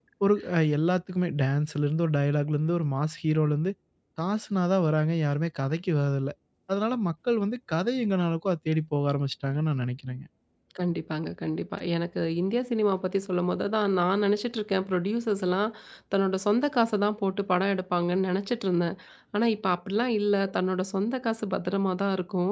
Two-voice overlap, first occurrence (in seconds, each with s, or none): none